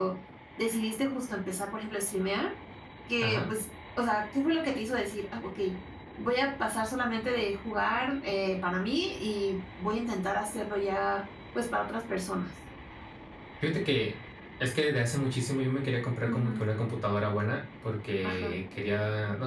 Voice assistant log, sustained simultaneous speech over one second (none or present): none